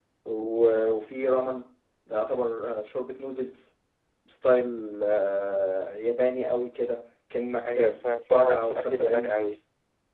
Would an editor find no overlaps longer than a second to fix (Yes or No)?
No